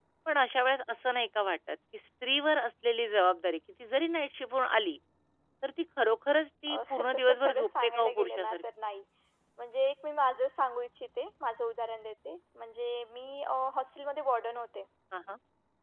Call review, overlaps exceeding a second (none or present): present